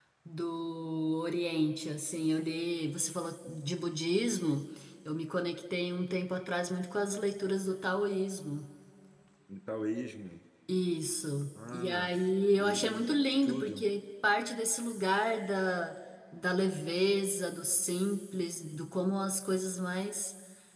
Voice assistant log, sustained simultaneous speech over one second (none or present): present